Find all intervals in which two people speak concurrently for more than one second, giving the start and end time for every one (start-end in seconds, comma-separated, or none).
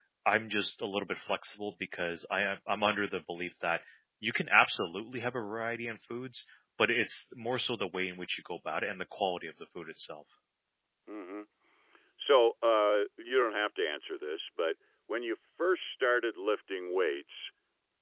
none